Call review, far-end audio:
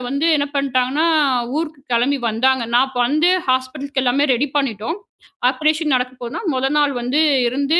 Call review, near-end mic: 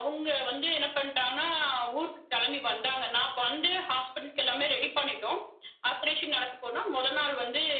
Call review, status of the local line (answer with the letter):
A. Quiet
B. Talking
A